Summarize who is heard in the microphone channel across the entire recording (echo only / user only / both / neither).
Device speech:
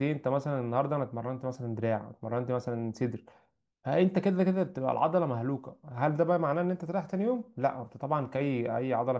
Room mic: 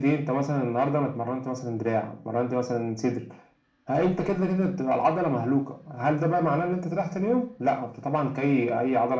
echo only